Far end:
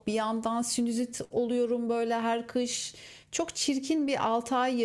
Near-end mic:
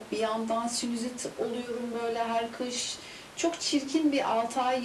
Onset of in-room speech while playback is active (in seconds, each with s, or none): none